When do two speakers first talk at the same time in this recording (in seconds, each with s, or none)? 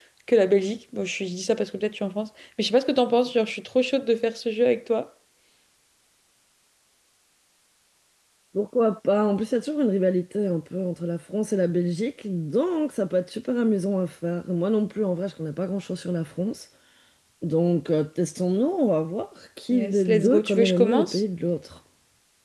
19.7 s